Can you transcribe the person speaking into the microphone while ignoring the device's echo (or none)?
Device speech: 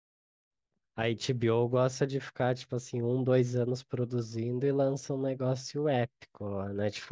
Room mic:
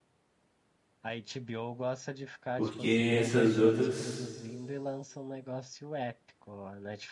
porque essas outras